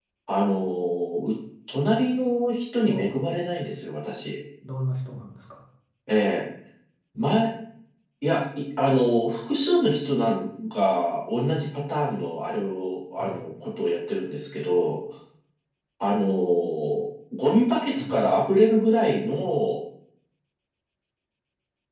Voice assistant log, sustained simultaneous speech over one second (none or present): none